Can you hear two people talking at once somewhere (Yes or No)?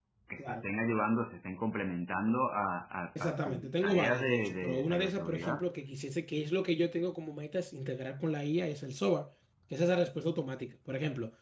Yes